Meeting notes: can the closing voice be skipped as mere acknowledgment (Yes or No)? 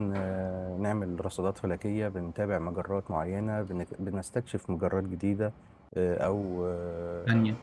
No